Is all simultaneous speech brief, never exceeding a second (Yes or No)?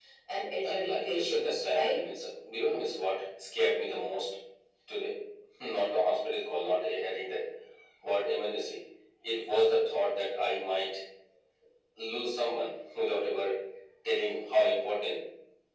No